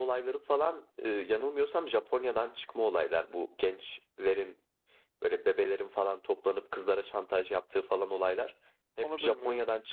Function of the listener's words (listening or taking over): listening